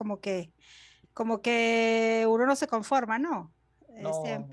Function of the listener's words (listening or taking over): listening